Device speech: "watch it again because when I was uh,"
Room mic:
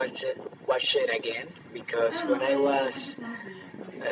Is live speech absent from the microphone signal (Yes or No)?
No